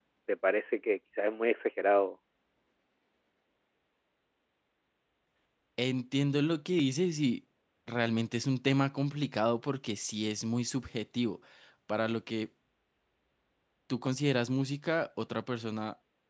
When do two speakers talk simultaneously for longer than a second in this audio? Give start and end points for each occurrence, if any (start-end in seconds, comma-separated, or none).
none